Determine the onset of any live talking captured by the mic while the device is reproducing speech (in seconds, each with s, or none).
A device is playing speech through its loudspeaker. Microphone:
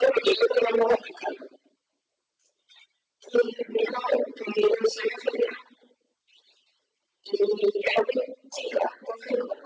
none